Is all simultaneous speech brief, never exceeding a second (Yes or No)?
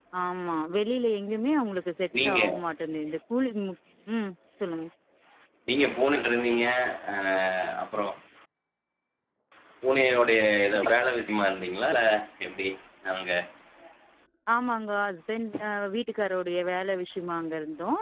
Yes